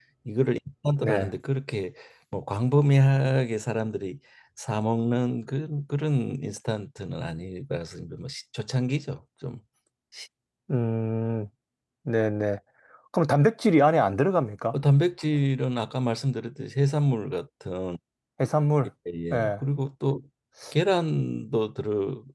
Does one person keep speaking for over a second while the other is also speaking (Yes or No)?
No